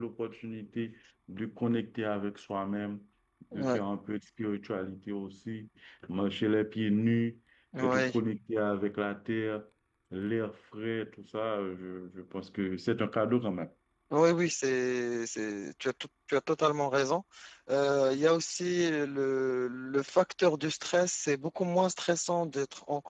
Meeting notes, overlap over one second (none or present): none